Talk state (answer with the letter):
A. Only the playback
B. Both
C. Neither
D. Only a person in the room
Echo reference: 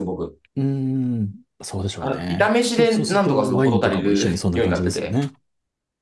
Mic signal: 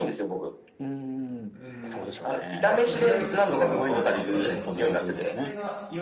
B